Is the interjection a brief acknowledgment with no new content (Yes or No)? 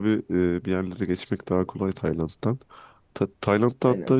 Yes